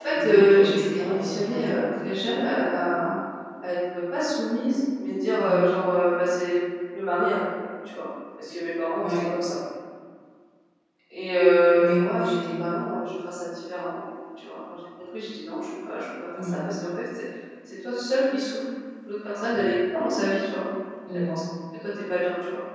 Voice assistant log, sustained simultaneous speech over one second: present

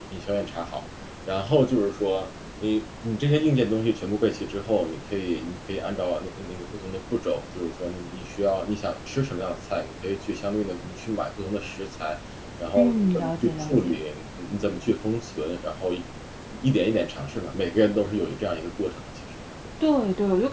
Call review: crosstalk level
present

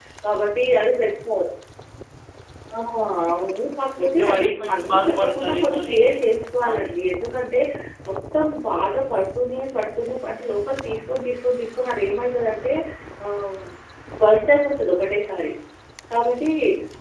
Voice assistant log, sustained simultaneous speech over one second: present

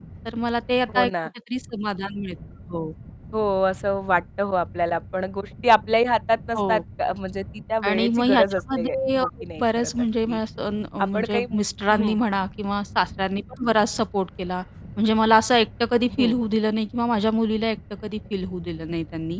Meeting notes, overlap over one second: present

